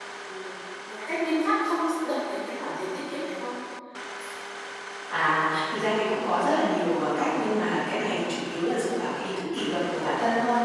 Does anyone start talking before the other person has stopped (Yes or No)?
No